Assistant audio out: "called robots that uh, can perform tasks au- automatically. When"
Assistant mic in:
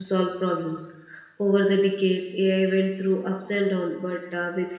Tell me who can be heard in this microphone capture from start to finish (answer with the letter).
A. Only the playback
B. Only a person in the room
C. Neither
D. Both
B